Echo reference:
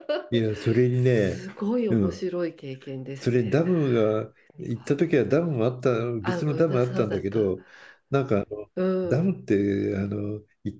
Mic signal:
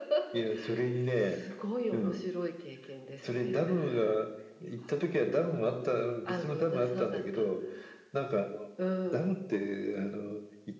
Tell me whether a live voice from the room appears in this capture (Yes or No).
No